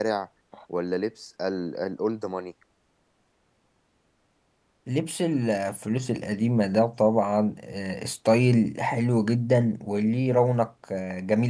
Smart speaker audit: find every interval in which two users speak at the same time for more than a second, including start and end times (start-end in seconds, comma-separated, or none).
none